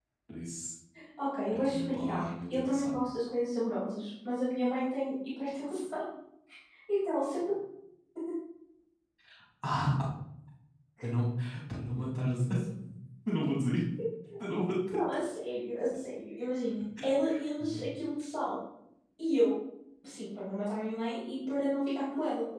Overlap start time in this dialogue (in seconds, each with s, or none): 1.5 s